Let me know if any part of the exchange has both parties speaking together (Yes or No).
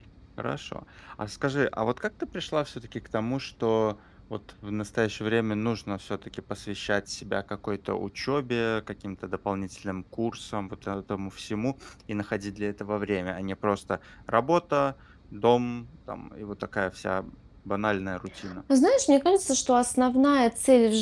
No